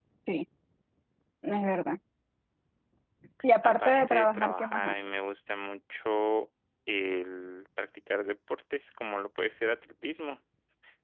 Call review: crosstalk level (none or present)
present